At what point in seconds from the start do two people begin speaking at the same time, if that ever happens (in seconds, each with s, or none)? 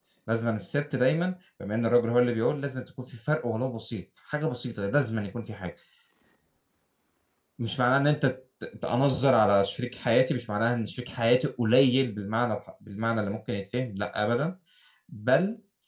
none